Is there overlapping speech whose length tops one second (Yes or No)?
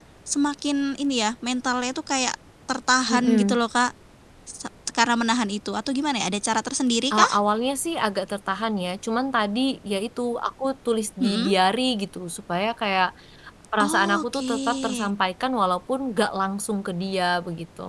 Yes